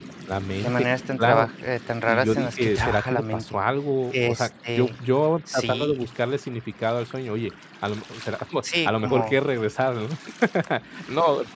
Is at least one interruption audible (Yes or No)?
Yes